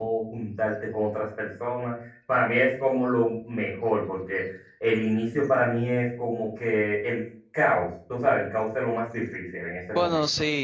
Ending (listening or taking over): taking over